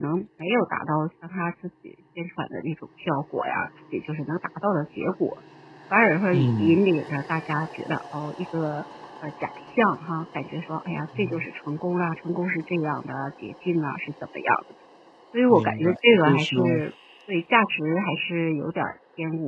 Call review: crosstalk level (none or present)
present